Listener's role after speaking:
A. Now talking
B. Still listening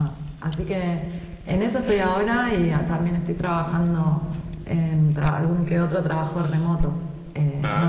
B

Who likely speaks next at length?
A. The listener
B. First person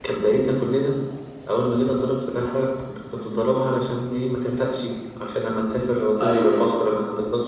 B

